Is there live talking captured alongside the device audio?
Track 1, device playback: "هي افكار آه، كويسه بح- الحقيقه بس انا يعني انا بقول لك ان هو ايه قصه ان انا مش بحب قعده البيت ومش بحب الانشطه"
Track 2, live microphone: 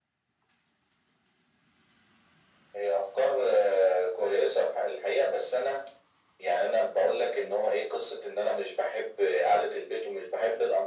No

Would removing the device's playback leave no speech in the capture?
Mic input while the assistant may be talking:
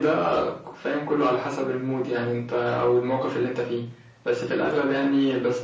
Yes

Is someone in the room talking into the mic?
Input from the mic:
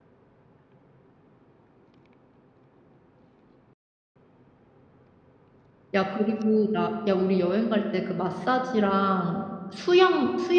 Yes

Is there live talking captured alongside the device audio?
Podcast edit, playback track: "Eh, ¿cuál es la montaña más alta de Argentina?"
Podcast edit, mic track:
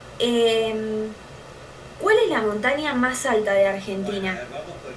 Yes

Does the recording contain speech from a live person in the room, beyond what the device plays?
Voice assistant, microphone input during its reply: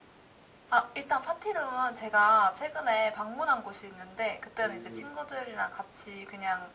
Yes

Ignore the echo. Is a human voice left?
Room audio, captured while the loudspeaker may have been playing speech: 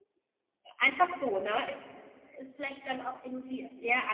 Yes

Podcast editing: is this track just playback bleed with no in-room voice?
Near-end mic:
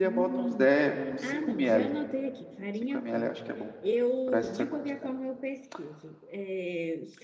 No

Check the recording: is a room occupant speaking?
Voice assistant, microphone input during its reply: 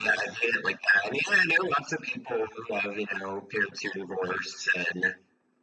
No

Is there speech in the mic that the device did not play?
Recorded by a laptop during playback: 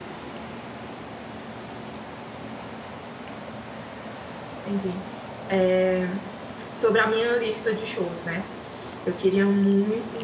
Yes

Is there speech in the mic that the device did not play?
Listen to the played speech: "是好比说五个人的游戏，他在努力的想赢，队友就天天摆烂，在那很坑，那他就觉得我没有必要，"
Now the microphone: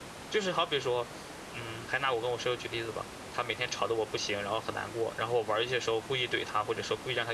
Yes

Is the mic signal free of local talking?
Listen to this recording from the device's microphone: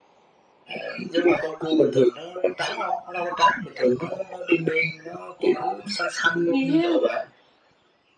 No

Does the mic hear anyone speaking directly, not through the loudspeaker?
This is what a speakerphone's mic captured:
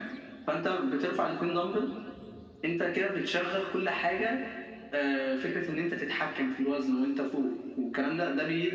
No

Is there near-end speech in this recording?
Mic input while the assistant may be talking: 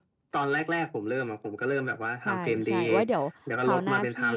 Yes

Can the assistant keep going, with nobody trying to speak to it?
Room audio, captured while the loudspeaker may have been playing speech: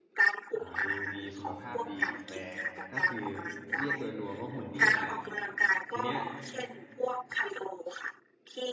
No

